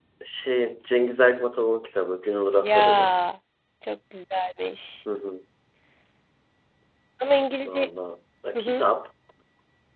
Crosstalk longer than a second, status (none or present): none